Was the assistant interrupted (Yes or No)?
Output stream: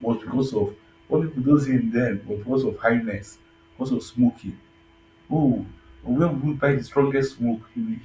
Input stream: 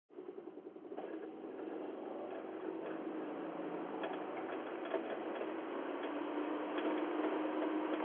No